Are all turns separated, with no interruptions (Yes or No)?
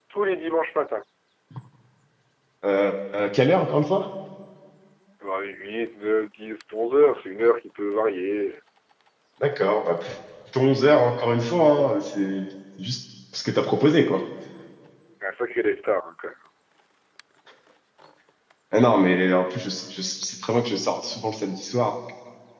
Yes